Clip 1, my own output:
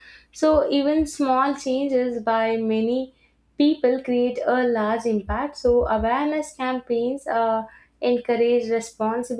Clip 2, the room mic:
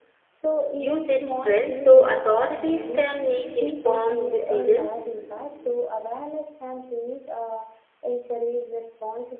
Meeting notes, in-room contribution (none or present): present